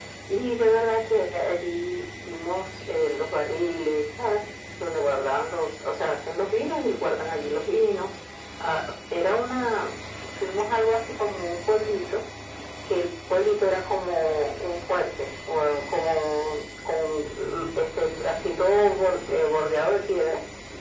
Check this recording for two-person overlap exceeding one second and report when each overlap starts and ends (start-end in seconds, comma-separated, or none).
none